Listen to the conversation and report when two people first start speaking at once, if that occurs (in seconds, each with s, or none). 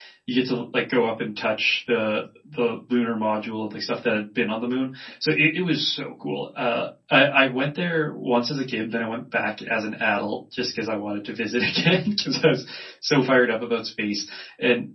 none